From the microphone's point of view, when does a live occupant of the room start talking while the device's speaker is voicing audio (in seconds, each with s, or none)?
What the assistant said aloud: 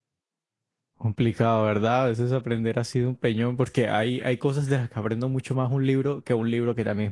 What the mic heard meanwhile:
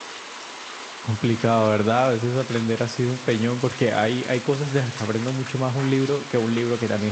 none